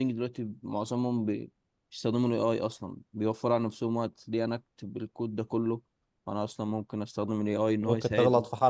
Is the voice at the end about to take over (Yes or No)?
Yes